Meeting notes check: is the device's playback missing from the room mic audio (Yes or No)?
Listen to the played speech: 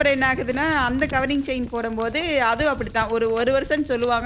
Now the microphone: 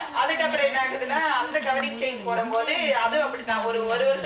No